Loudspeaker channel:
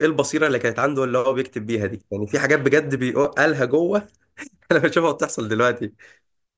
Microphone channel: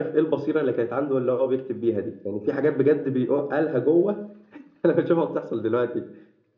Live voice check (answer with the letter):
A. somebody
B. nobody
B